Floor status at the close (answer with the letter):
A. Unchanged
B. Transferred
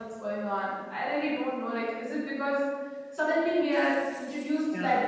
A